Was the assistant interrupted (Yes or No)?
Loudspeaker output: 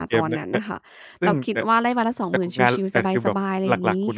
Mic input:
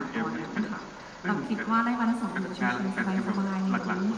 No